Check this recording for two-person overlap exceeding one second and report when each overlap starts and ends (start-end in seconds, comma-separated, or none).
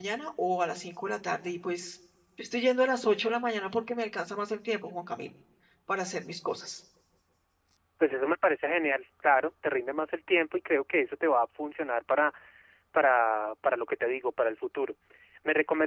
none